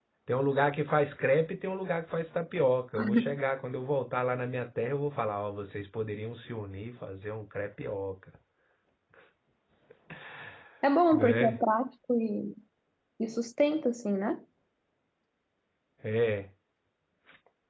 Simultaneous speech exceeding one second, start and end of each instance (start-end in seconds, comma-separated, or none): none